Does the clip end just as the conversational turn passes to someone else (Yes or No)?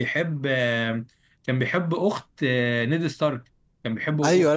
Yes